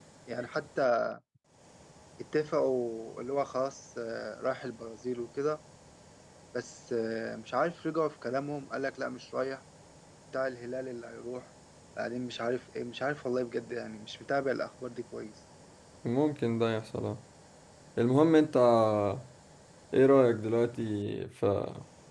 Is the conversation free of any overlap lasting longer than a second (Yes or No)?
Yes